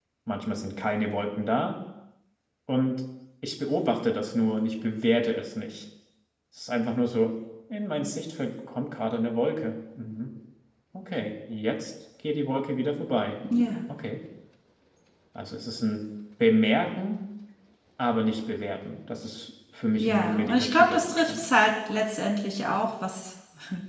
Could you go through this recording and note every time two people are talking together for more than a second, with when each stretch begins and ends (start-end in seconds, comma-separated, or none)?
20.0-21.5